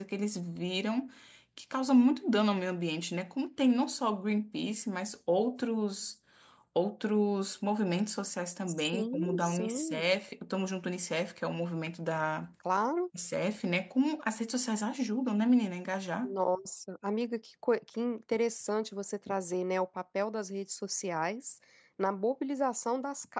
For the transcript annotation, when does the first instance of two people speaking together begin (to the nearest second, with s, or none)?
9 s